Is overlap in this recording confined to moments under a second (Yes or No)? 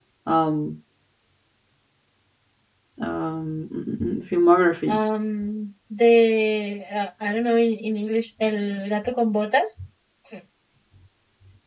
Yes